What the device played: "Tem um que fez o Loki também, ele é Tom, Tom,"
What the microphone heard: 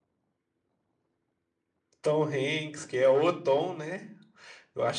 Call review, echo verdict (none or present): none